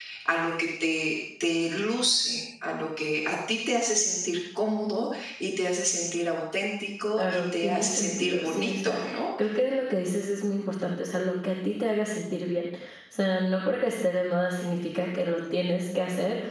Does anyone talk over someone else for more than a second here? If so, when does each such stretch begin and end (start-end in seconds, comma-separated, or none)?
7.2-9.0